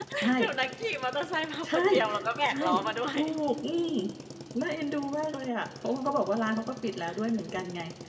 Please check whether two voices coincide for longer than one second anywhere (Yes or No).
No